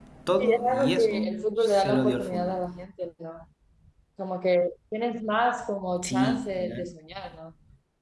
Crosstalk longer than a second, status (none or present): present